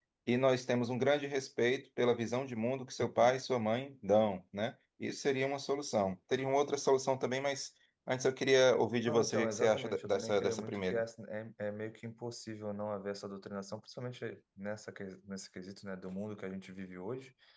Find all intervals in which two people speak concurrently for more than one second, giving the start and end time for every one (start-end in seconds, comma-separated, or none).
9.1-11.0